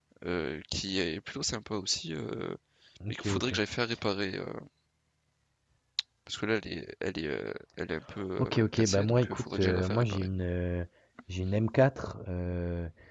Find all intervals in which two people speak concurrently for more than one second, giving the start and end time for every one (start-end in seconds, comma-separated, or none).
8.4-10.3